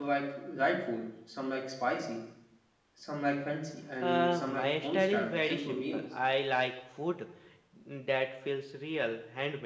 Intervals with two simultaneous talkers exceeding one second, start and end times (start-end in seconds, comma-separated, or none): 4.0-6.0